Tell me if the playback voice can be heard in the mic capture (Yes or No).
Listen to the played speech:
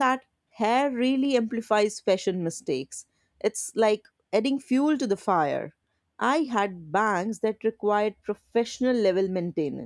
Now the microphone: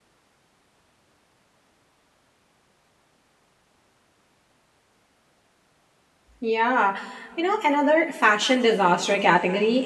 No